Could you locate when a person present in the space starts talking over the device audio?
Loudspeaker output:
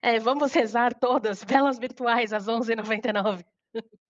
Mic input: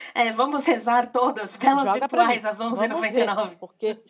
1.7 s

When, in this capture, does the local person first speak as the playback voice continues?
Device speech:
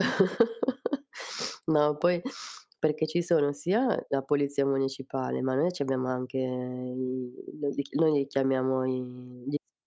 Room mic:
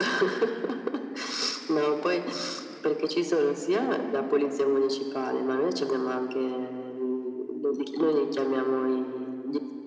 none

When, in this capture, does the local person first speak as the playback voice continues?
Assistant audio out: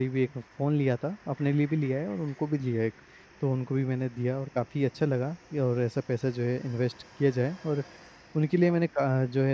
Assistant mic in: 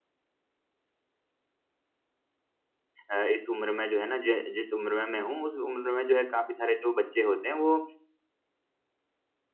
3.1 s

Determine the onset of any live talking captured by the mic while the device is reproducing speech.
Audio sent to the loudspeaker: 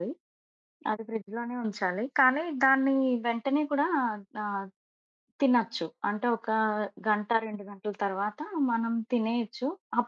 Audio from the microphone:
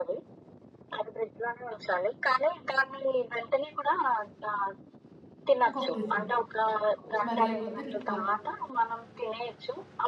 5.7 s

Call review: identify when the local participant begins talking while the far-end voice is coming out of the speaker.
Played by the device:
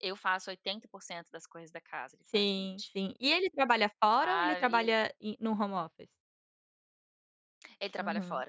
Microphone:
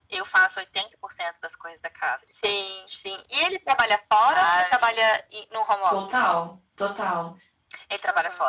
5.9 s

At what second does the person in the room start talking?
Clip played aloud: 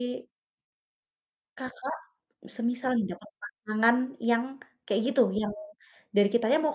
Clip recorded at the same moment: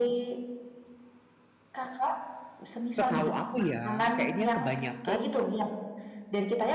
2.9 s

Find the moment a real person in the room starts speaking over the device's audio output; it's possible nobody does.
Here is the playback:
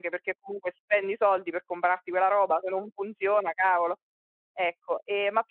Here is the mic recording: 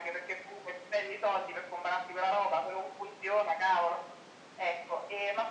none

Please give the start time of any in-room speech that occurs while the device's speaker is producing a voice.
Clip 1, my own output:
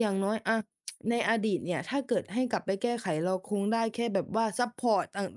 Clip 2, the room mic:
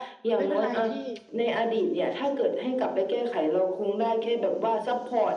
0.4 s

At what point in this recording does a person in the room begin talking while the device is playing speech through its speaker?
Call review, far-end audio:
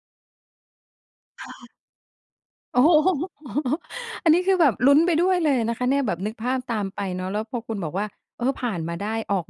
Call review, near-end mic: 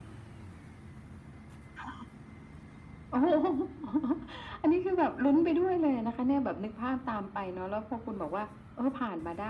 none

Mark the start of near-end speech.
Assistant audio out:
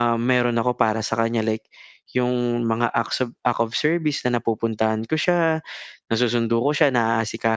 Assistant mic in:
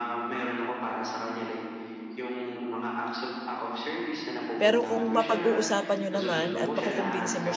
4.5 s

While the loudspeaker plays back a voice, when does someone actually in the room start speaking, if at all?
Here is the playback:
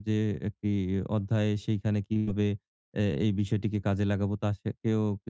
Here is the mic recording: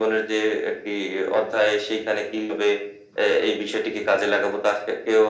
none

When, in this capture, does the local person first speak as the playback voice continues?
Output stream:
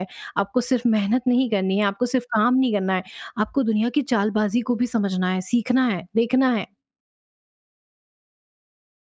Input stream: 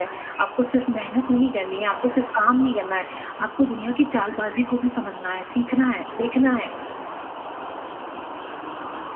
none

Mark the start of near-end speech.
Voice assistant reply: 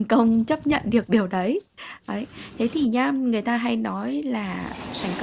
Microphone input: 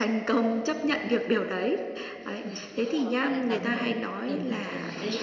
2.2 s

